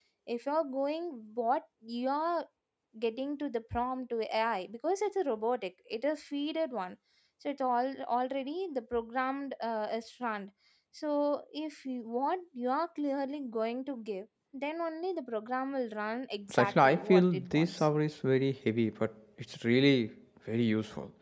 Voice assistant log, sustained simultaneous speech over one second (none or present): present